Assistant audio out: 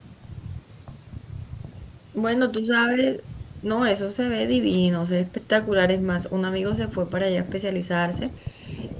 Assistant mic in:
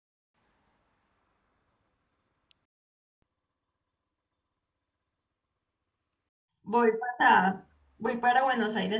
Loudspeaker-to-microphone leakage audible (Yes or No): No